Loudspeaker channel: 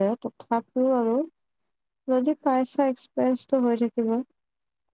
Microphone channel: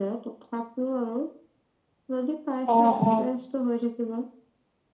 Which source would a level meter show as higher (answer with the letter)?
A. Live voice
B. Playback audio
A